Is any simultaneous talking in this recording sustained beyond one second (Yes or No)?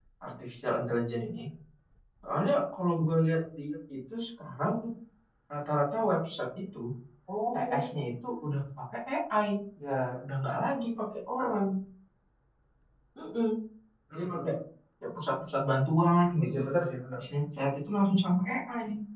No